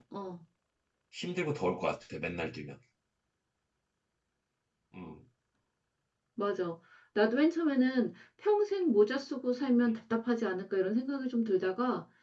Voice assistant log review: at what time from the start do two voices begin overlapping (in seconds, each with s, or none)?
none